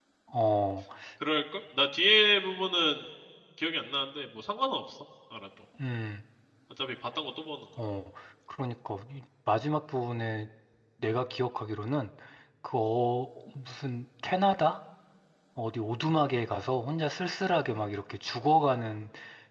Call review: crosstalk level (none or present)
none